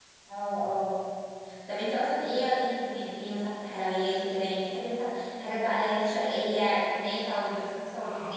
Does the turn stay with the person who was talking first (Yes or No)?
No